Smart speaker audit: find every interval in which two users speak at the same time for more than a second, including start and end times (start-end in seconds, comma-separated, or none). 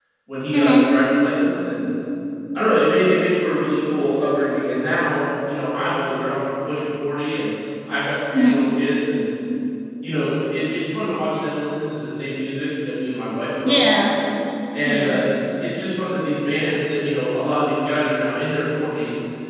none